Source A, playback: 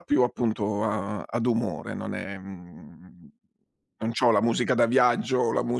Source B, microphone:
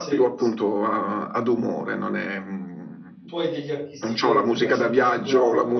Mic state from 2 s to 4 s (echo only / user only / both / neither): both